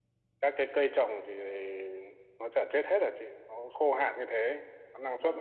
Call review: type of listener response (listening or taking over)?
taking over